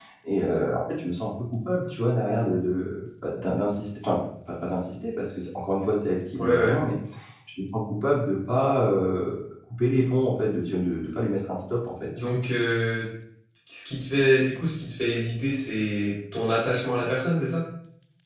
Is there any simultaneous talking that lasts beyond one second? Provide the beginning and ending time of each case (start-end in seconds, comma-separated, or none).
none